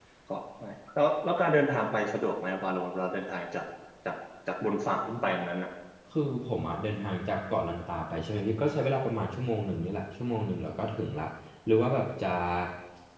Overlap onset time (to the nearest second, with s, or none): none